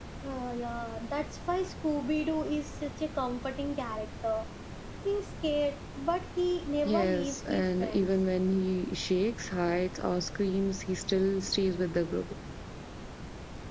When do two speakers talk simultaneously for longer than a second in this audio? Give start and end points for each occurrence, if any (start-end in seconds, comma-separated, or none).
6.8-8.1